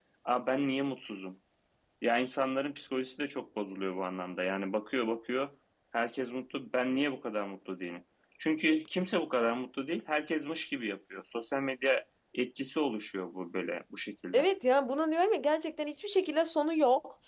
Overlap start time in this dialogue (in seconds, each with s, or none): none